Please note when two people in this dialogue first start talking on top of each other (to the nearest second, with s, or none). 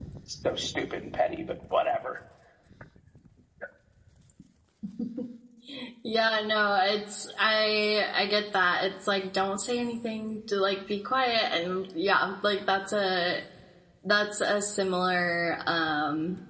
none